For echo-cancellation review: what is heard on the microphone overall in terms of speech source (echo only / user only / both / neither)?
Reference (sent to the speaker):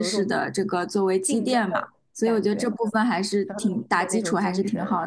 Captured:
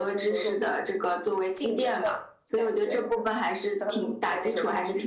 echo only